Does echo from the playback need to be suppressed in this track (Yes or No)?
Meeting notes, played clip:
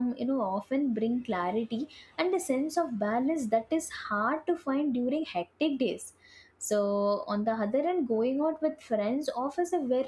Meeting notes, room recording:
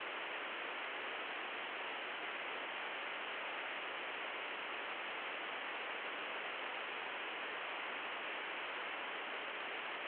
No